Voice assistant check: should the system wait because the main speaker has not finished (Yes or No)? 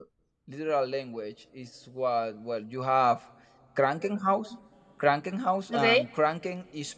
Yes